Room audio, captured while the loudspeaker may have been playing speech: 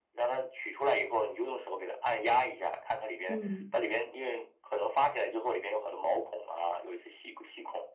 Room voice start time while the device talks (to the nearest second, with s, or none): 3 s